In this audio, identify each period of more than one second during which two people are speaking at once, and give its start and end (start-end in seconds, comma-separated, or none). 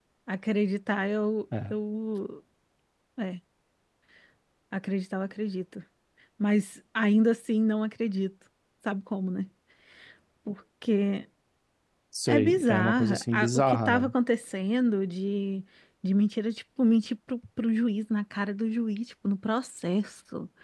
12.3-14.1